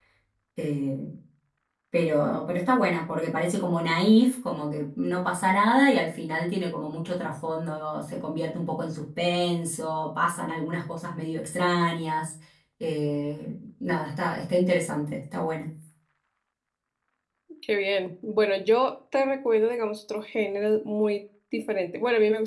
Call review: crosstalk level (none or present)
none